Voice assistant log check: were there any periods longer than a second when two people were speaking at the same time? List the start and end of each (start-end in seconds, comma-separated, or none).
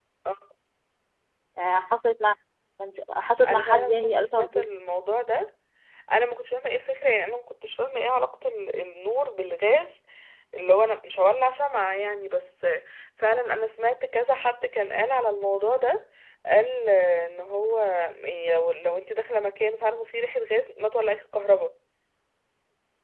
3.5-4.7